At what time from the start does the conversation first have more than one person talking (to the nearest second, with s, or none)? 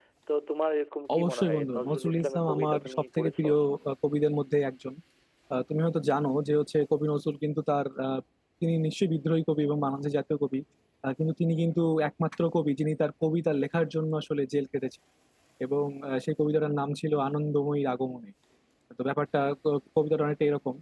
1 s